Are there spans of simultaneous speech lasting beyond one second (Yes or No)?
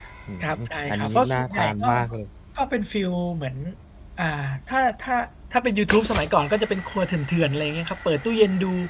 Yes